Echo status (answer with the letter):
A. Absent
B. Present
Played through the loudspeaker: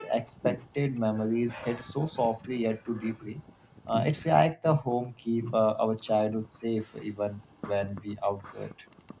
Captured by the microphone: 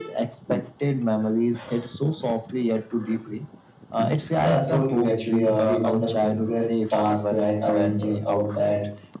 B